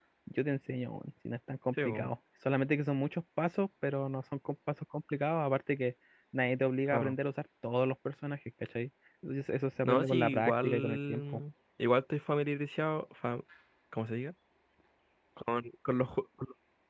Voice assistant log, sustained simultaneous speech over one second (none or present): present